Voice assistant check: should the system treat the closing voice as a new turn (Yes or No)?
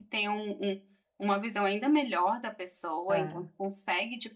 No